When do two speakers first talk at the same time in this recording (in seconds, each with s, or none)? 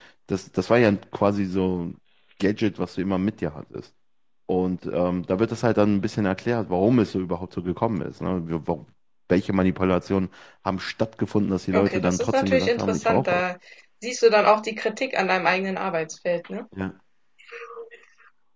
11.7 s